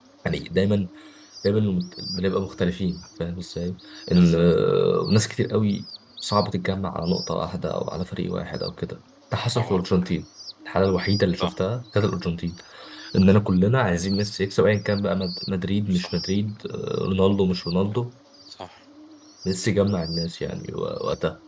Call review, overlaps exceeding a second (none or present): none